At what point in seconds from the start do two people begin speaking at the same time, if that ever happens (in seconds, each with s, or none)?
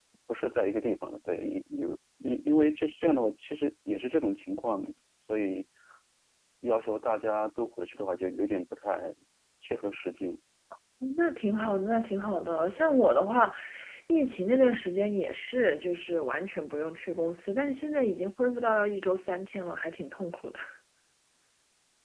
none